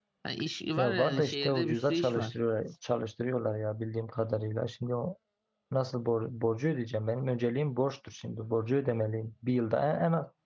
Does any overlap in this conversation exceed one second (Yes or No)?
Yes